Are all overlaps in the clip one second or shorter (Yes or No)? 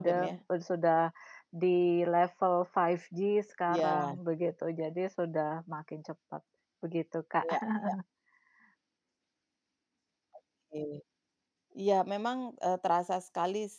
Yes